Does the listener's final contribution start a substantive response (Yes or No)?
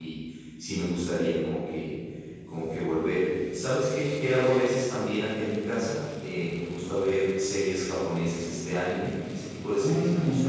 Yes